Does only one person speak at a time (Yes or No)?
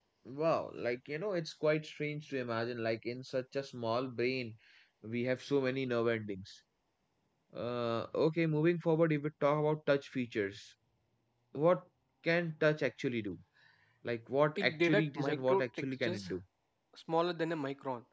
No